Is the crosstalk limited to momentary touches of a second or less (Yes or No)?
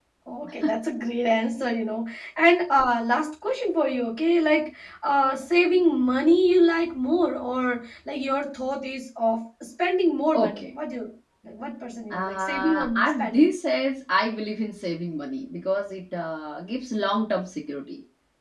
No